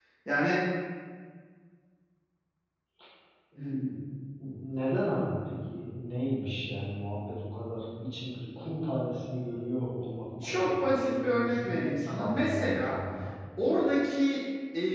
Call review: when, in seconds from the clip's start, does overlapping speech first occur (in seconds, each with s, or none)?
10.4 s